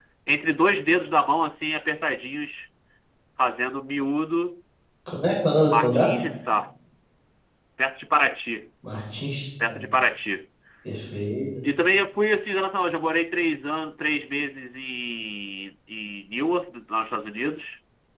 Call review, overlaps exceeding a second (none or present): none